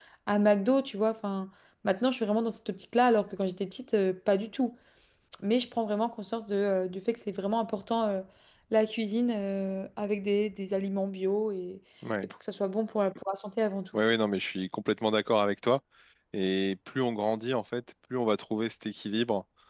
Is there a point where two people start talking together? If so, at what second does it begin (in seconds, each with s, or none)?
none